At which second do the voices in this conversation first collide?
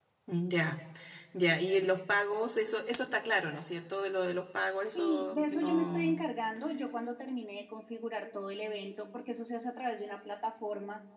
5 s

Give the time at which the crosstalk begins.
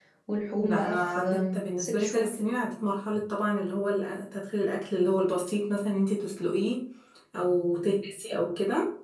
1 s

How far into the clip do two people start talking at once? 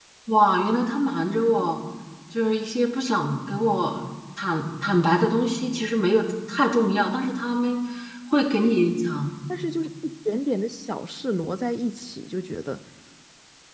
none

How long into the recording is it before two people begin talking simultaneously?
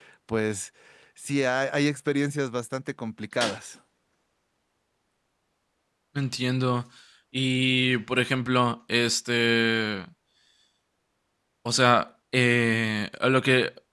none

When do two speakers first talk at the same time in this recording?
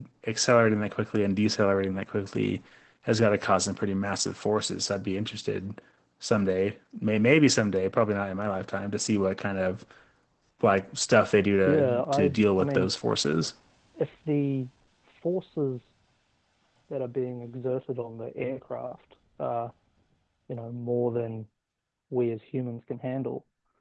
12 s

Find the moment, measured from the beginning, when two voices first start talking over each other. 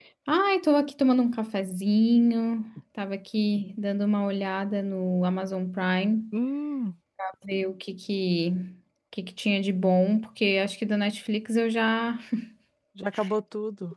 none

